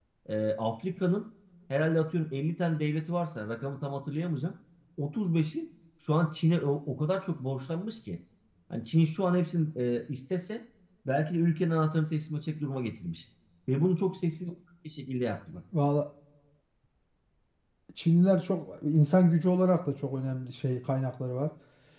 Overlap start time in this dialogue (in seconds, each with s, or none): none